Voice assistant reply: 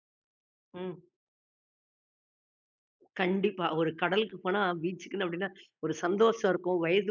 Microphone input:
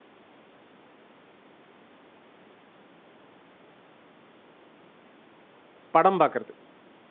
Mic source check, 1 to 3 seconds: neither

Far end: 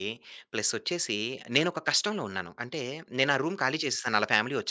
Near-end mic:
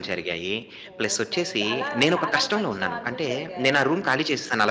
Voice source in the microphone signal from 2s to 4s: both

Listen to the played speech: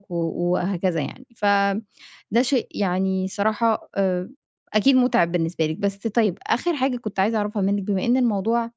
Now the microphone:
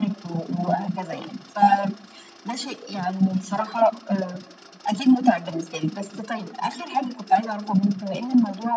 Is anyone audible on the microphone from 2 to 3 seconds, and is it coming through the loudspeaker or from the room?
echo only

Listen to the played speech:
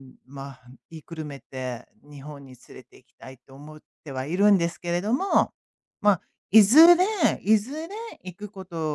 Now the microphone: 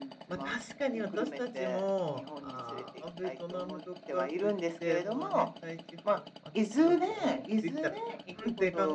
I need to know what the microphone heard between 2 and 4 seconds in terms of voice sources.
both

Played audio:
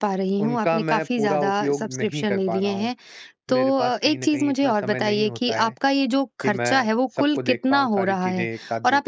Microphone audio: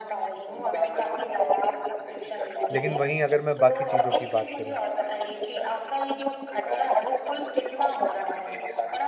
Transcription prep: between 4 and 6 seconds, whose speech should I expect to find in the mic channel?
both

